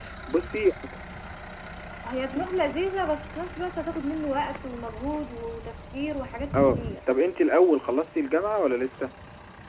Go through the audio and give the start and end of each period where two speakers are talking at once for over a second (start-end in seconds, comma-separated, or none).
none